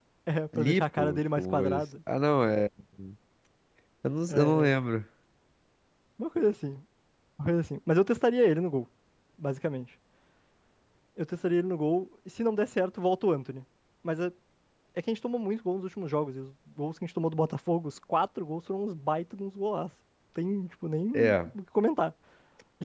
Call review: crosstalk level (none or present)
present